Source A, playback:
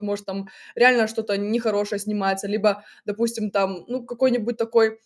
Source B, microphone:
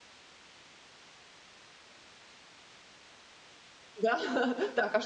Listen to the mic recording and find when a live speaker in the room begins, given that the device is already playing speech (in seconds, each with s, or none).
4.0 s